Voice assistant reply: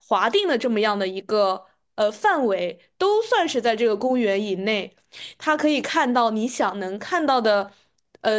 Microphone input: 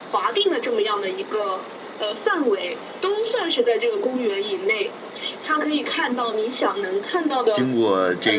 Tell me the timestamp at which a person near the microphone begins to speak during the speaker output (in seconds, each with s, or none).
7.5 s